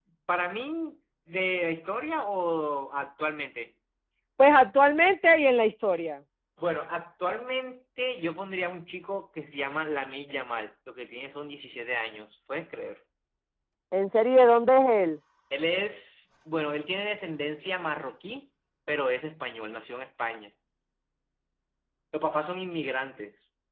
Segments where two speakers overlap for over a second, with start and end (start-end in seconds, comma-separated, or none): none